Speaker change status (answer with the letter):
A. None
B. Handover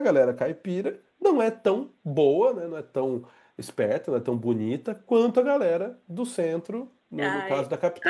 B